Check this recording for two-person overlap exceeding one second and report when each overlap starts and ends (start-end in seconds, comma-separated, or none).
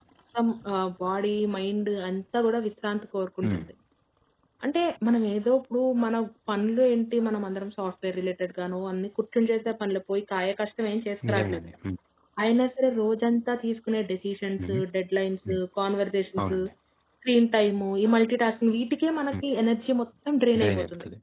none